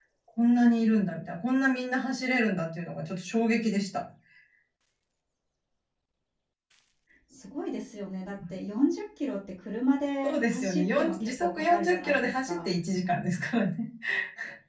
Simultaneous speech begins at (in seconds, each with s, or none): 10.2 s